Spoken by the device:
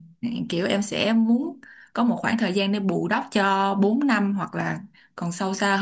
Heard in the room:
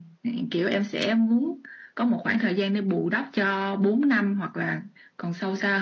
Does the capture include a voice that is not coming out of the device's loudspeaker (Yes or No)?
No